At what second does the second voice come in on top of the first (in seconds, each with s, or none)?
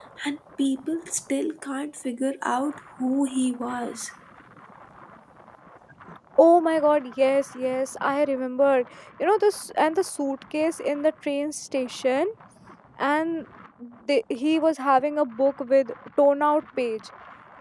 none